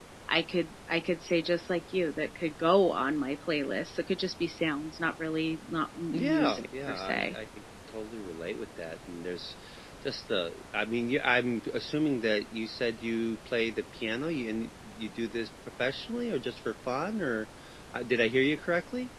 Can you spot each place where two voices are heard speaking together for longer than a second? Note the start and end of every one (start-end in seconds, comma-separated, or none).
6.1-7.4